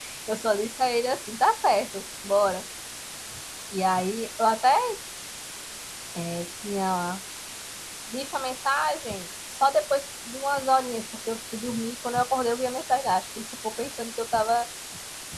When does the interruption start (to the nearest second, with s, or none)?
none